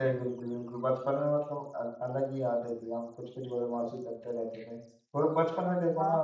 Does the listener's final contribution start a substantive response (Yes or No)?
No